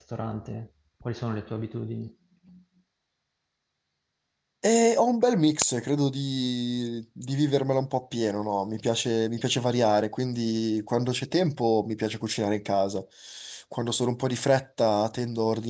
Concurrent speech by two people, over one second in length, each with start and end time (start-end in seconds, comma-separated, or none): none